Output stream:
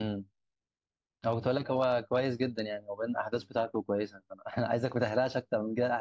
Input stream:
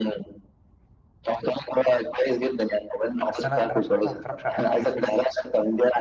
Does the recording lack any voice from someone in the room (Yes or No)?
No